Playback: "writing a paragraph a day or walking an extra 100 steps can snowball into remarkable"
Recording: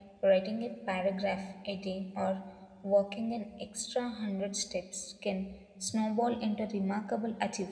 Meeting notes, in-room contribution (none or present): none